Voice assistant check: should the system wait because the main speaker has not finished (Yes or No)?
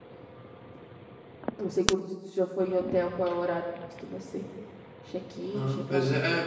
No